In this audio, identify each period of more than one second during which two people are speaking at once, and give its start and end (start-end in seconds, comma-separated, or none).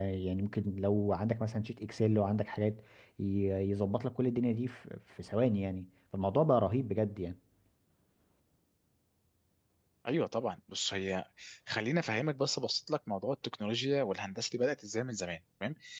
none